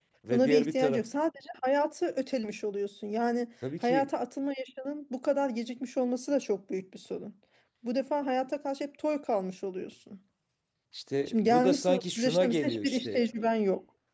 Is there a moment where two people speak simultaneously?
Yes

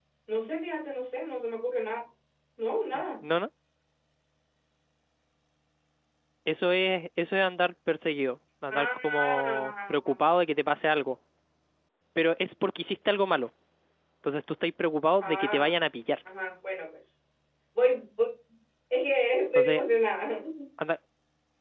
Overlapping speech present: Yes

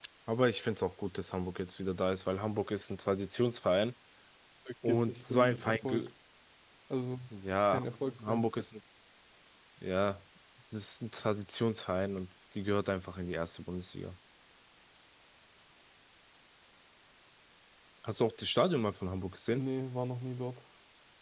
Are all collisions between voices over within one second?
No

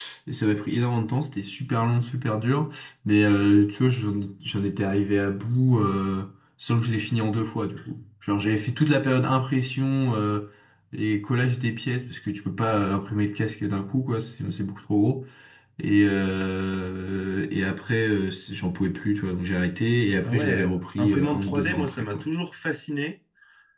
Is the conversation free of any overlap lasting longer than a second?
No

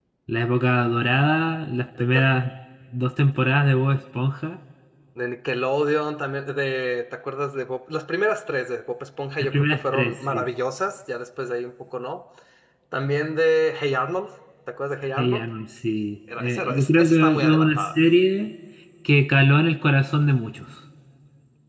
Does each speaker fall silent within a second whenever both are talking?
No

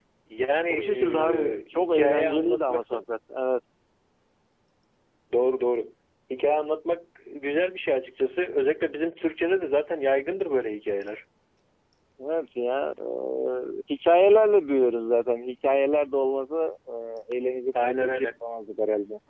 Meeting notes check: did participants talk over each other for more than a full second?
Yes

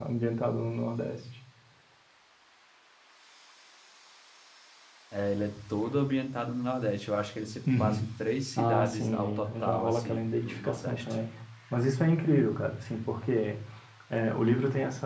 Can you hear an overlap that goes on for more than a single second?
Yes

